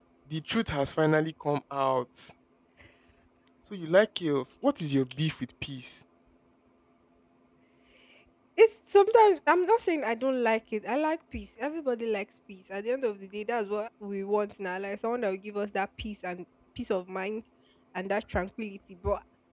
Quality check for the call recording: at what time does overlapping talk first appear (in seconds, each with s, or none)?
none